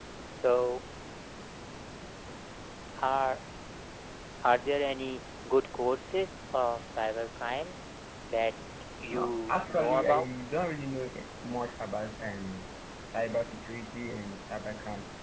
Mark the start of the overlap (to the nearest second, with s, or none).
9 s